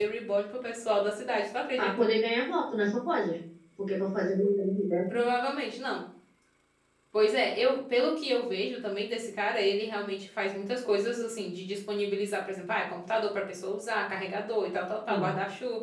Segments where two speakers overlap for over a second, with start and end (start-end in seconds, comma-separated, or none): none